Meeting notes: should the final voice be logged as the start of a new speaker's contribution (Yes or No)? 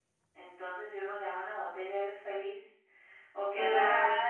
No